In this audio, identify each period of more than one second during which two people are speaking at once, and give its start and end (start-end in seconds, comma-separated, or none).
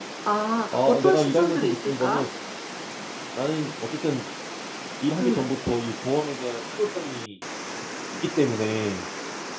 0.7-2.3